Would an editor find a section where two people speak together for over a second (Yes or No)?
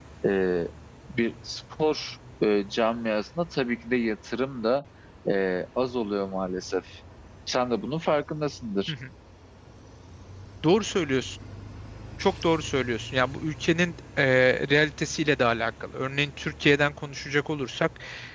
No